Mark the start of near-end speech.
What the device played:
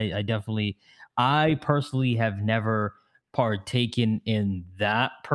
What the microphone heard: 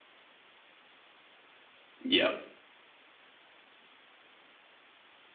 2.0 s

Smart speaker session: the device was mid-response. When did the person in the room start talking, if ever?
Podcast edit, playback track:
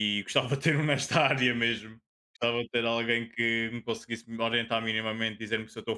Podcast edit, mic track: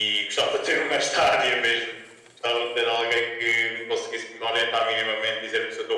none

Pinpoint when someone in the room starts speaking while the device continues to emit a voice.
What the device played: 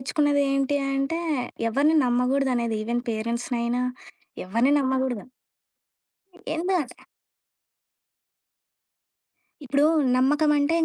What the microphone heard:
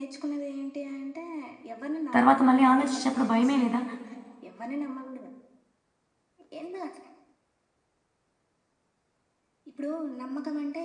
2.2 s

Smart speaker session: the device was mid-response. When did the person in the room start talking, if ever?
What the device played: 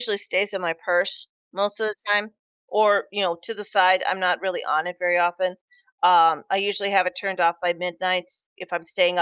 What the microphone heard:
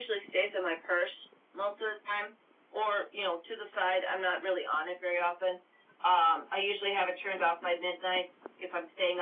none

